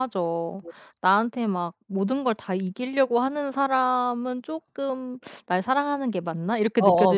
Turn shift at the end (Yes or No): Yes